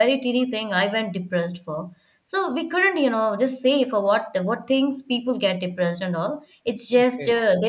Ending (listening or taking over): listening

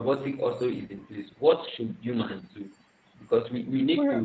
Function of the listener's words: listening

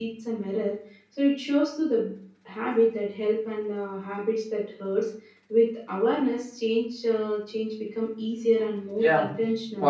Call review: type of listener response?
taking over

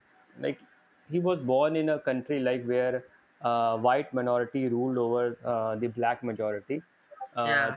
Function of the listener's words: listening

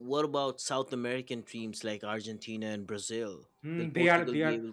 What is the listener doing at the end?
taking over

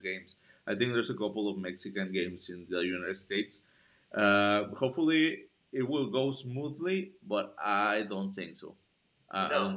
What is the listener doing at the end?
taking over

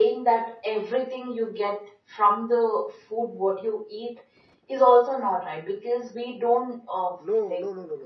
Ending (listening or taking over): taking over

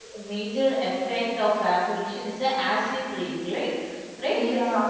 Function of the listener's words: listening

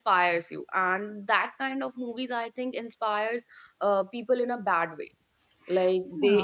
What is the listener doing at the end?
listening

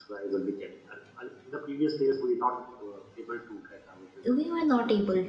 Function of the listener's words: taking over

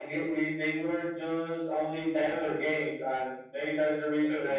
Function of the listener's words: listening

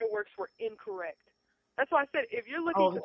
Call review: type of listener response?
taking over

